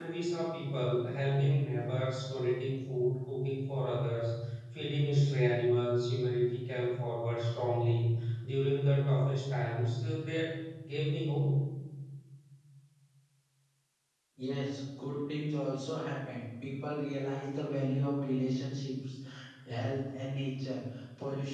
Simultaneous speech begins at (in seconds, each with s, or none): none